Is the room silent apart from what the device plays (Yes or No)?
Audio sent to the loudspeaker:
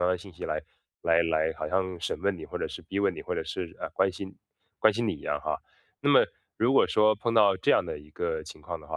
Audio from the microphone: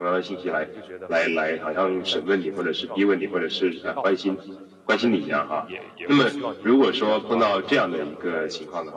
No